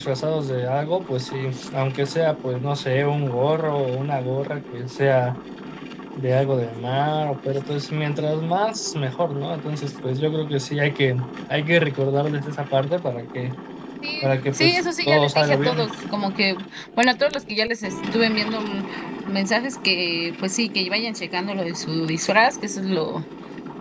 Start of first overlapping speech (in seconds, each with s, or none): 14.2 s